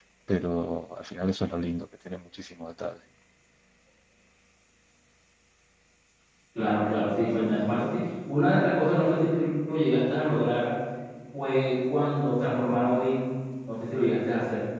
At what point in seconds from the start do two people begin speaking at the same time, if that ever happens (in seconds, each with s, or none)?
none